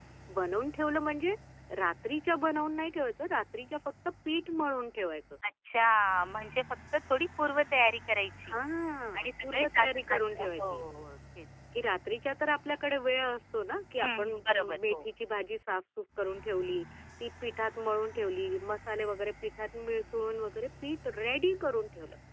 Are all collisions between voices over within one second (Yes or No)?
No